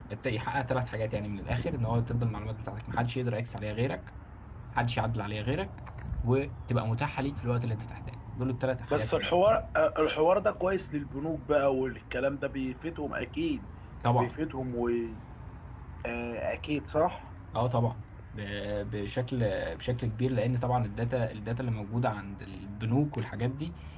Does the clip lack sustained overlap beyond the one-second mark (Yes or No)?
Yes